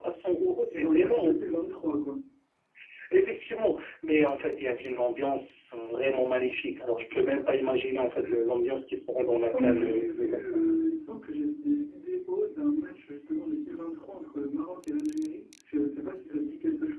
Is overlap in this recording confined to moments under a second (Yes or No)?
No